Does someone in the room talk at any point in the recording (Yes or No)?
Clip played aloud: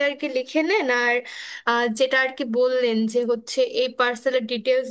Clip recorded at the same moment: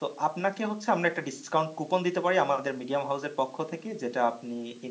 Yes